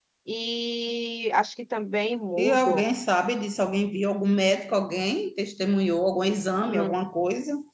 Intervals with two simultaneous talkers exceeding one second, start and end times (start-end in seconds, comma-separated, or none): none